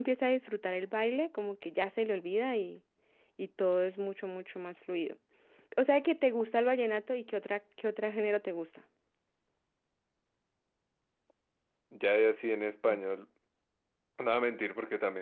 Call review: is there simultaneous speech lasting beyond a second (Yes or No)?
No